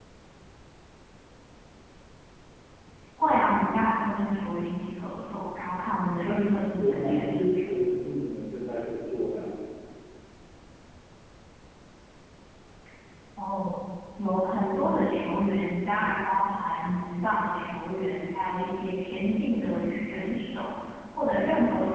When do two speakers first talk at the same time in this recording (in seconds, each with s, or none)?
6.2 s